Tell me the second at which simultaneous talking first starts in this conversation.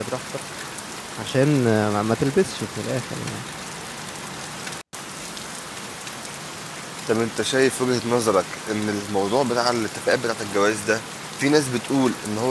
none

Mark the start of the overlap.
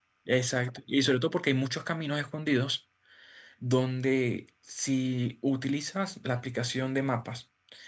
none

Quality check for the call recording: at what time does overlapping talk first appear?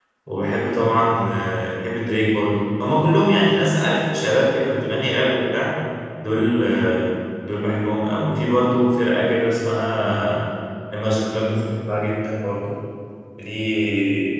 none

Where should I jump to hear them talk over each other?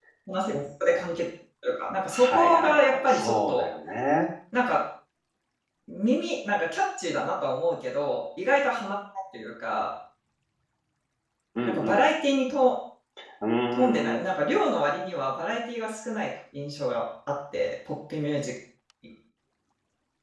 2.1 s

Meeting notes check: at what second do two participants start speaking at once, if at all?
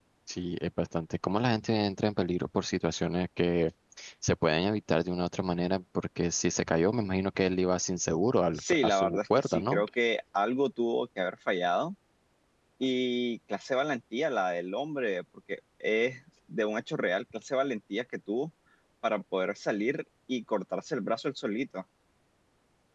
8.6 s

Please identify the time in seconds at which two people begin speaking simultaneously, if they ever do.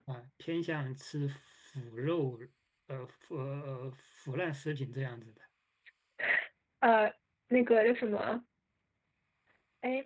none

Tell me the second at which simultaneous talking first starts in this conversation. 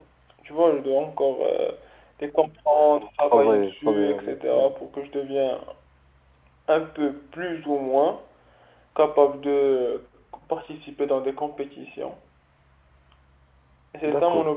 3.2 s

